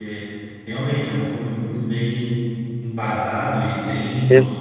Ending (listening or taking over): listening